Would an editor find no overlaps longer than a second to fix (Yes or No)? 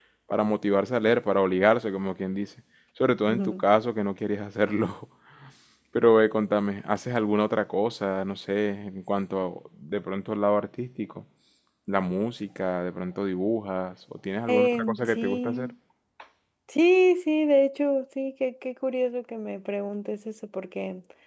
No